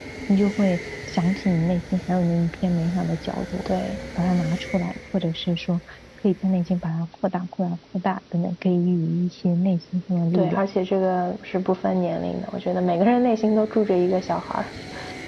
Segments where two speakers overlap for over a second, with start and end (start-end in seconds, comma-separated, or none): none